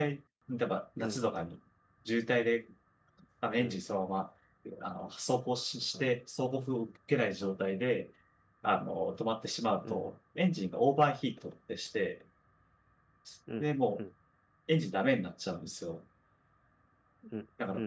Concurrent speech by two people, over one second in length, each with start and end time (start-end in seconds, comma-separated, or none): none